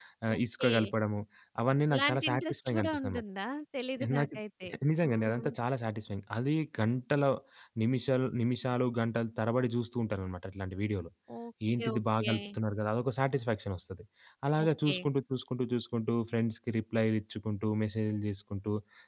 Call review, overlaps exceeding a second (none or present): present